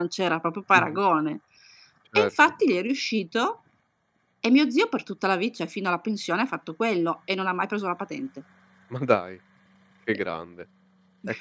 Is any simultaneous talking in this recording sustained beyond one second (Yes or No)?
No